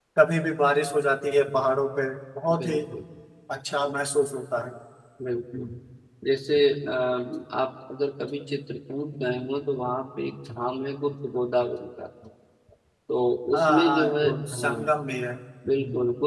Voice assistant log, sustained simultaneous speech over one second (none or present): present